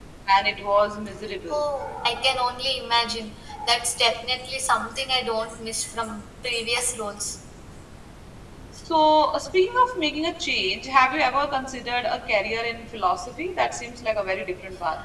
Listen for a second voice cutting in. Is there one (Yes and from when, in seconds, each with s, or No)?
No